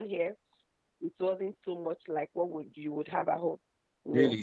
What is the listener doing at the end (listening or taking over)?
taking over